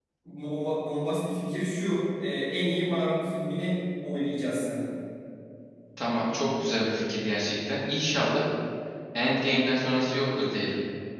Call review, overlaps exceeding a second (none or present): none